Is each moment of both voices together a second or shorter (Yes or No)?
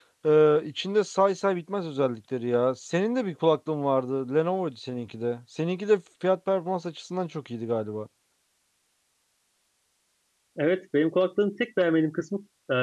Yes